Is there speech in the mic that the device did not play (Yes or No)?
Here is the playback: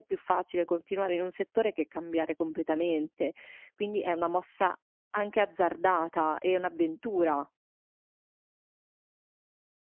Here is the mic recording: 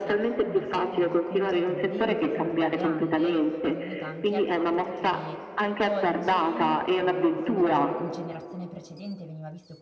Yes